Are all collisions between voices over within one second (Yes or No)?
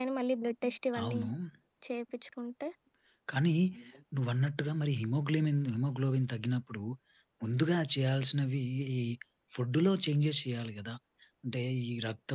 Yes